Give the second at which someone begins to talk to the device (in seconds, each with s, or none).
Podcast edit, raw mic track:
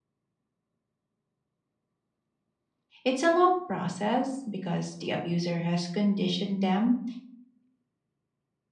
3.0 s